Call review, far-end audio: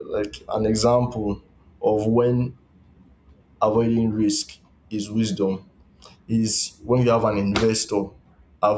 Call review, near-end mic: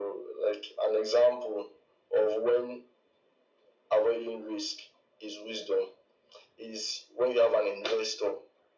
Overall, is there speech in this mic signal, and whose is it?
echo only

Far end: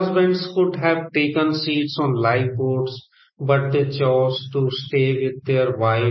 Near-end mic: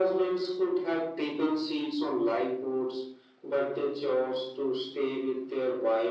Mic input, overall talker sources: echo only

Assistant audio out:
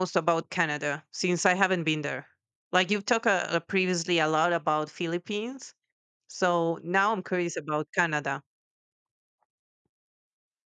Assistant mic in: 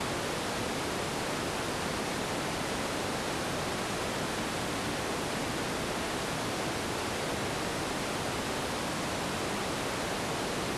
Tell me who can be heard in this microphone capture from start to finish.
neither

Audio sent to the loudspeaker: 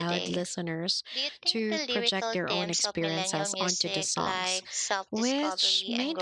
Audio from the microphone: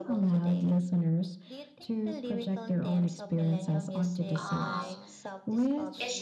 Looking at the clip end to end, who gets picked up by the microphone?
both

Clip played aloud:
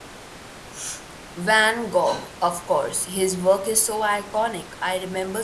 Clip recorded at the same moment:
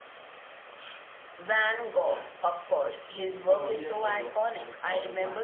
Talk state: both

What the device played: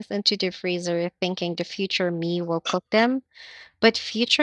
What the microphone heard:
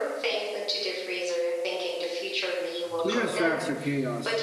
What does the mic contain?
both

